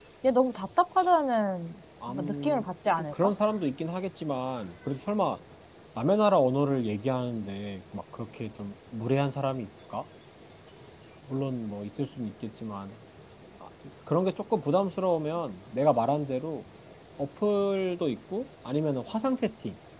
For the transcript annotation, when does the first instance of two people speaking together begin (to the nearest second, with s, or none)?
2 s